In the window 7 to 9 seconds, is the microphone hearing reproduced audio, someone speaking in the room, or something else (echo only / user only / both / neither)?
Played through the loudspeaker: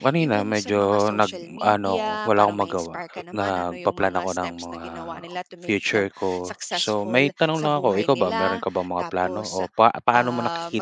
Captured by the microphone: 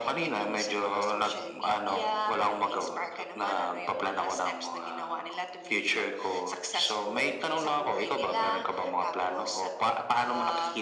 echo only